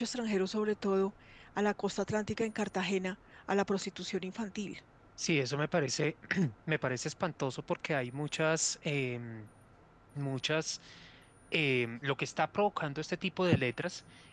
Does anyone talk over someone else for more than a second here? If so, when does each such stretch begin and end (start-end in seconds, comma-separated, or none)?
none